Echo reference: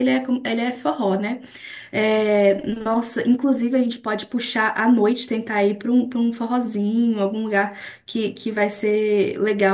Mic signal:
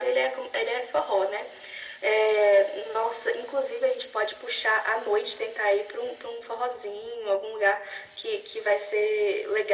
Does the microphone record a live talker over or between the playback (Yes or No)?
No